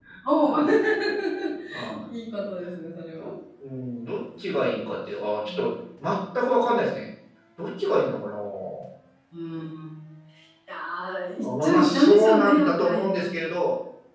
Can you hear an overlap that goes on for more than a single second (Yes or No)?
Yes